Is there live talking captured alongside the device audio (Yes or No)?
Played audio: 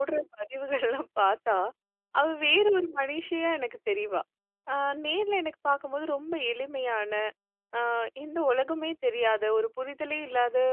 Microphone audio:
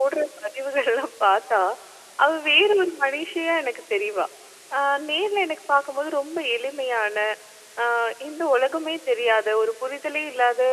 No